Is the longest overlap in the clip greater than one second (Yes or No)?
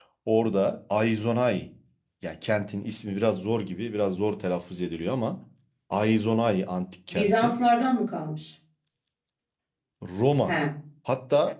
No